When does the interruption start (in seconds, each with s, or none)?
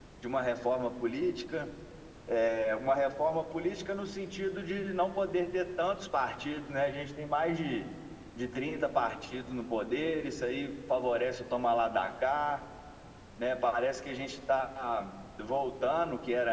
none